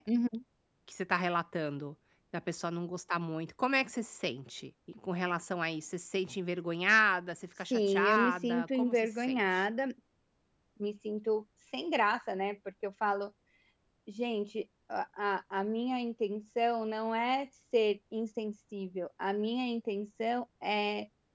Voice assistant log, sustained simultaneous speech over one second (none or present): present